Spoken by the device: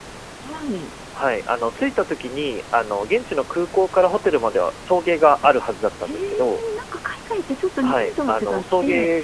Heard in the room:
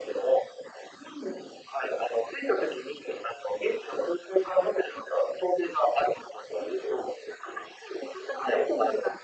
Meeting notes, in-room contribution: none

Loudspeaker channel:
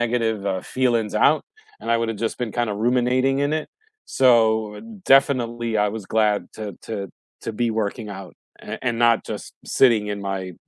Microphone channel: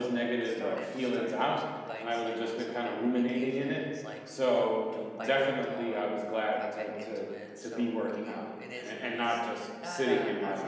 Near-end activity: present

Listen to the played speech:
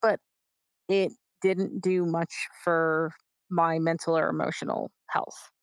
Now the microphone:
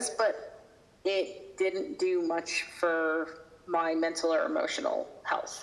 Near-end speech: none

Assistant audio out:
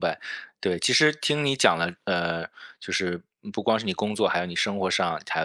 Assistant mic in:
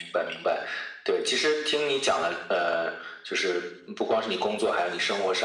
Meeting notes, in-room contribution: none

